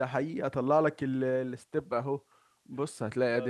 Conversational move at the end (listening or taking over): listening